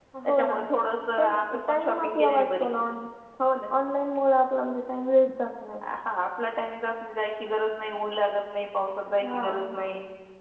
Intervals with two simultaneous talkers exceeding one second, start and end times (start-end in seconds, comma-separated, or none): 1.2-2.7